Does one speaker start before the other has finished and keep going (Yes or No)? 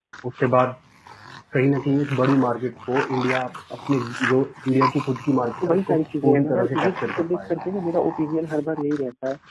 Yes